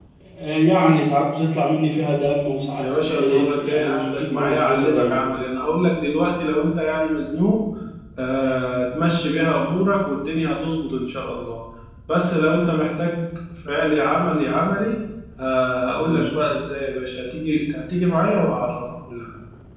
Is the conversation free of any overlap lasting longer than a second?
No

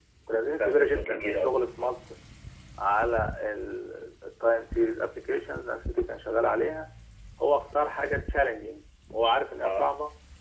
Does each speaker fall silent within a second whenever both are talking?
No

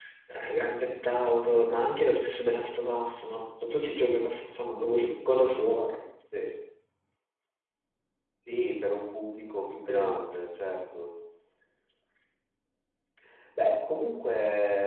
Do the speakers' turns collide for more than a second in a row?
No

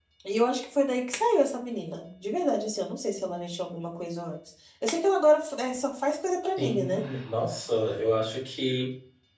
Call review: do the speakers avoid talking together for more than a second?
Yes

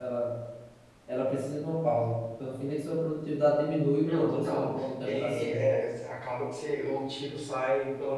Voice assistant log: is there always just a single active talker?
No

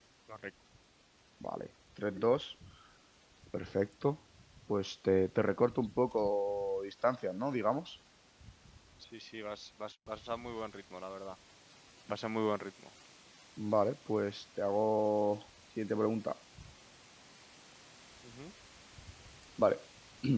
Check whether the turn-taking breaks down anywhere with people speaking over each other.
No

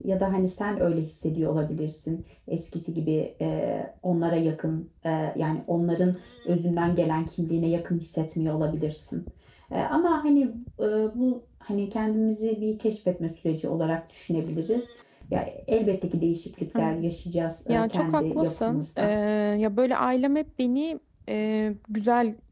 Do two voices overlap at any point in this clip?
Yes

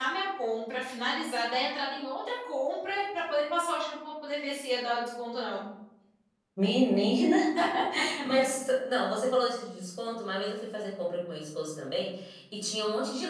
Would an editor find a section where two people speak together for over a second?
No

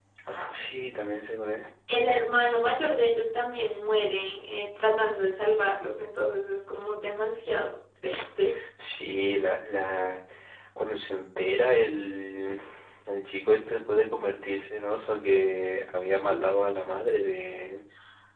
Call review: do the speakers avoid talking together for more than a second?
Yes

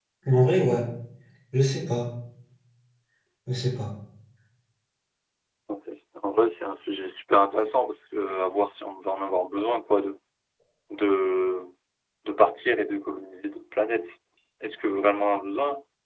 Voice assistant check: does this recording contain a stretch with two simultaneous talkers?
No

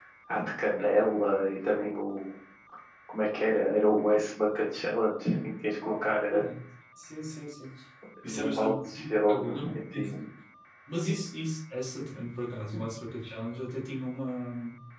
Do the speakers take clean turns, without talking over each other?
No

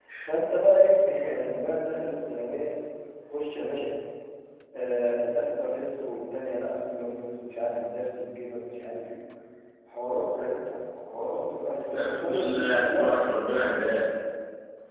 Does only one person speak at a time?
No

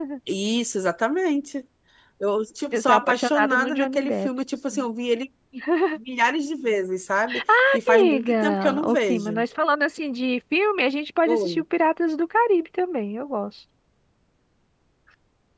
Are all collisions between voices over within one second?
No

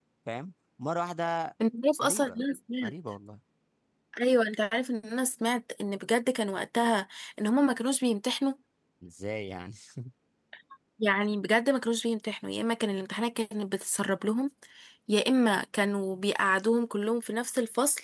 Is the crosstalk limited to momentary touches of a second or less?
Yes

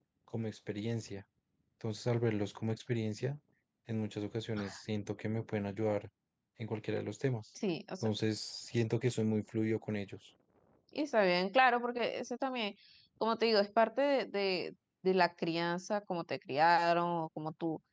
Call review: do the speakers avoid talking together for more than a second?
Yes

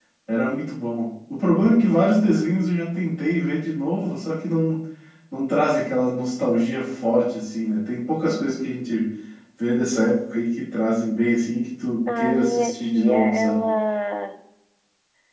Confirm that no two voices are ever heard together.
No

